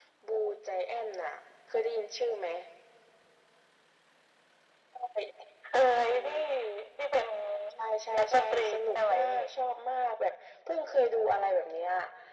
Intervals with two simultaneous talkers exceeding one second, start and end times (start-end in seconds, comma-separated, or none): 8.2-9.4